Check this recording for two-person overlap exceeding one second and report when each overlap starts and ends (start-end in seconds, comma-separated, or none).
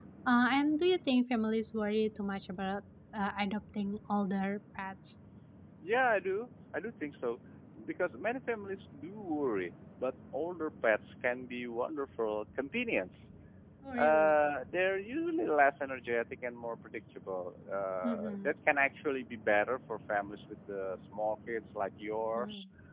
none